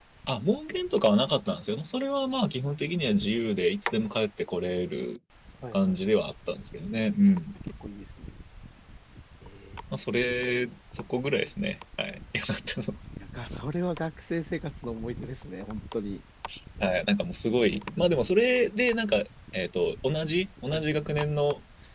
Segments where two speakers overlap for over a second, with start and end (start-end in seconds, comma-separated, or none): none